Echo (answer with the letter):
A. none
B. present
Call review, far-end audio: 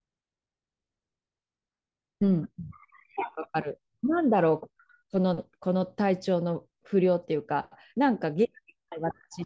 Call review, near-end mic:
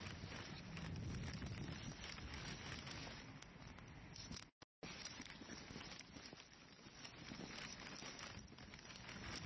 A